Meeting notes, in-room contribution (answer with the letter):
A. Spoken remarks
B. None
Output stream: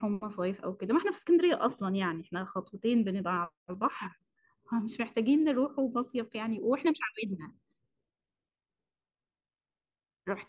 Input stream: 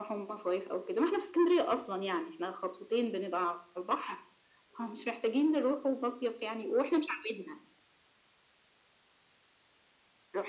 B